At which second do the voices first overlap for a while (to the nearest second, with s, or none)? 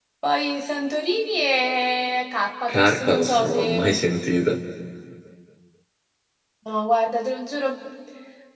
3 s